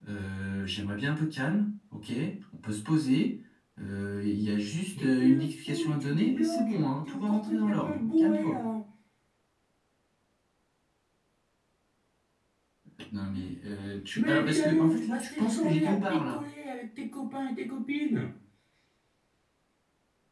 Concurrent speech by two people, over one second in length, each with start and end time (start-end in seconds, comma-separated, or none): 5.0-8.6, 14.2-16.4